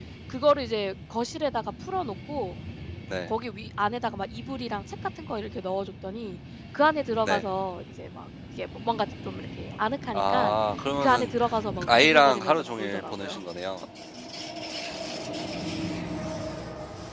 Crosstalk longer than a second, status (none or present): present